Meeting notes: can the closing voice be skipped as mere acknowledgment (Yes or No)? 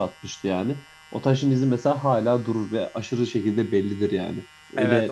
No